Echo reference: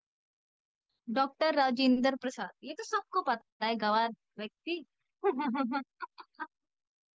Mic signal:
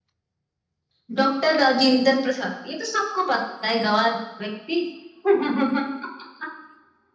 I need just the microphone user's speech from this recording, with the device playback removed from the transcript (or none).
none